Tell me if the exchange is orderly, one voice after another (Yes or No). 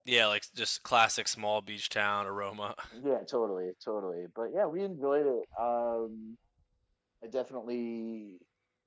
Yes